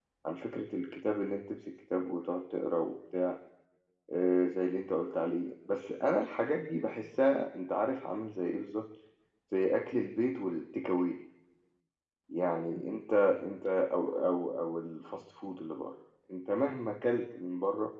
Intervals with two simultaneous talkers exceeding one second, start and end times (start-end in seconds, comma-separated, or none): none